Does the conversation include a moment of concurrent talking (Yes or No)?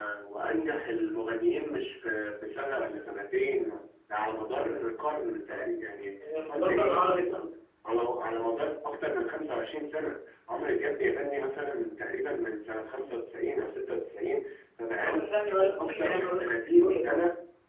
Yes